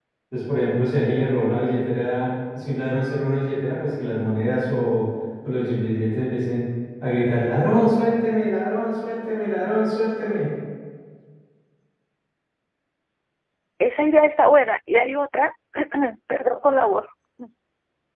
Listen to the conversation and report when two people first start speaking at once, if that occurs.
none

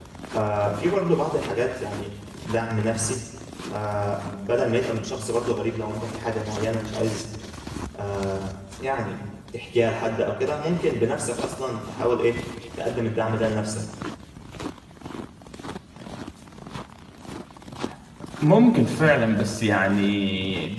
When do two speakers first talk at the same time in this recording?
none

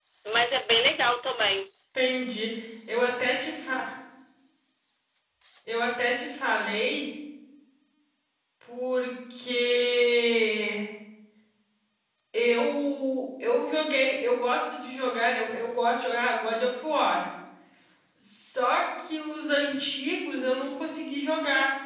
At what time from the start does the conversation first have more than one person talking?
none

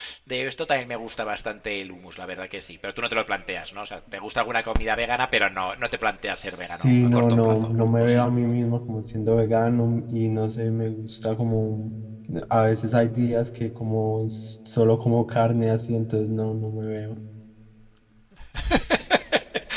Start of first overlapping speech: 6 s

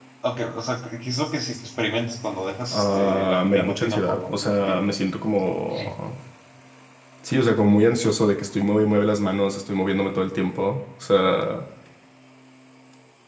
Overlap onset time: 3 s

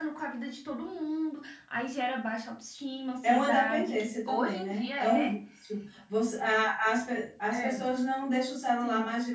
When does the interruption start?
3 s

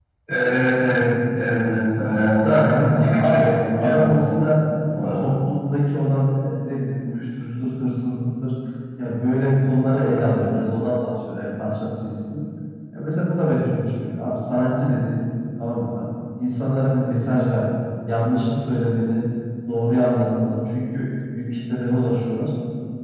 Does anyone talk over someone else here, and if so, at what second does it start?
2 s

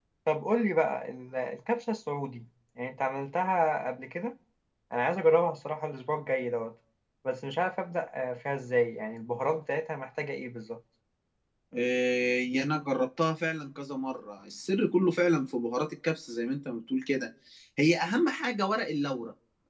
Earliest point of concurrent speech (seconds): none

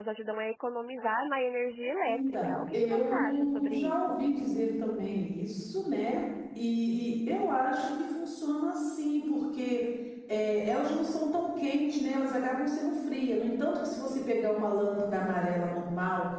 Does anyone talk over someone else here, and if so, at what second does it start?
2 s

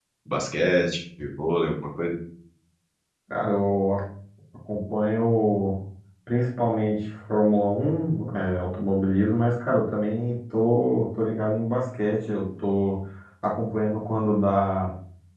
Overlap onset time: none

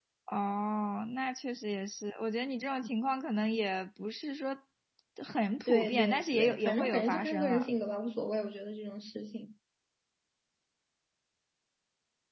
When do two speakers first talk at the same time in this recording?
6 s

